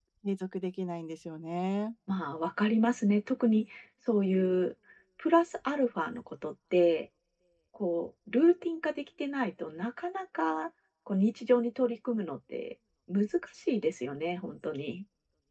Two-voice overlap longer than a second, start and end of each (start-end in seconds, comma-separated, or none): none